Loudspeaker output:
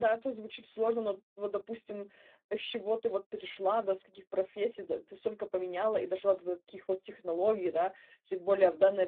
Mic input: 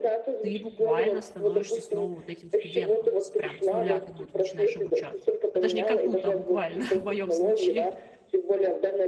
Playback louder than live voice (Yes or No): Yes